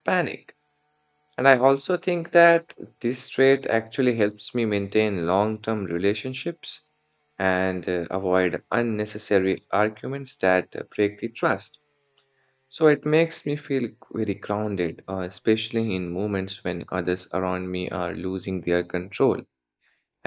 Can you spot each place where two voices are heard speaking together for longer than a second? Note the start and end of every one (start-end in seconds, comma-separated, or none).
none